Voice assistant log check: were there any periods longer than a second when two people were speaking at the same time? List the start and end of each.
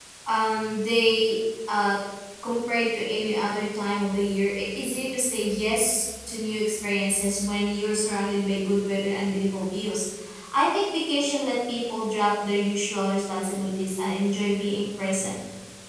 none

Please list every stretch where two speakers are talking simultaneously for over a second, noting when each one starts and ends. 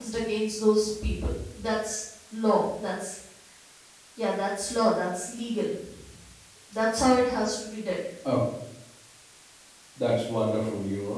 none

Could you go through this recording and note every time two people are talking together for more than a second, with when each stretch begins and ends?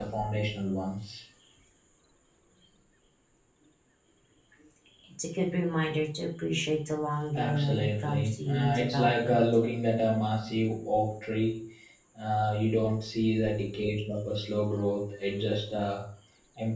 7.3-9.4

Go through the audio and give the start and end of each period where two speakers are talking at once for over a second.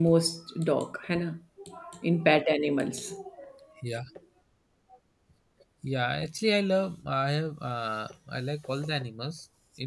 none

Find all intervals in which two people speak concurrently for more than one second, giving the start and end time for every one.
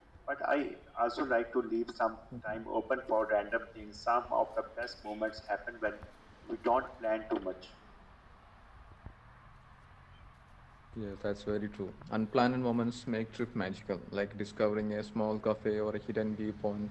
none

